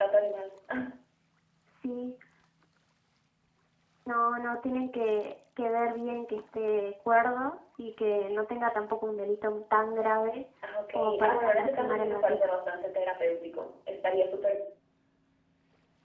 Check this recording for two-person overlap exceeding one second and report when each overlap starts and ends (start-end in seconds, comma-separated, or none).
11.0-12.5